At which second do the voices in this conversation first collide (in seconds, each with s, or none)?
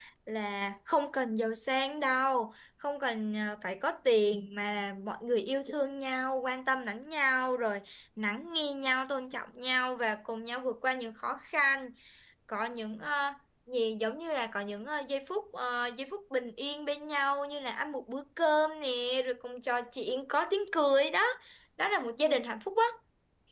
none